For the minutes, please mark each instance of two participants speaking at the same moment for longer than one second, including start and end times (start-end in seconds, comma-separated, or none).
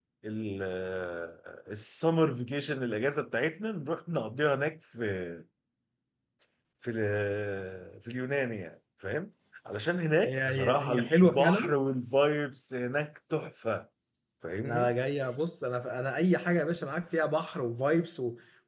10.2-11.7